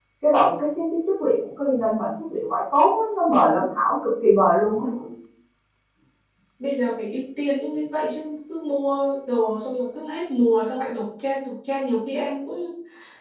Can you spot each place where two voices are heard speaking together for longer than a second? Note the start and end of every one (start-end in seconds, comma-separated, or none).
none